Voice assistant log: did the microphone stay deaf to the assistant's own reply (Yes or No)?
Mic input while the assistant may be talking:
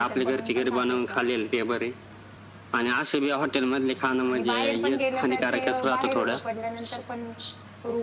No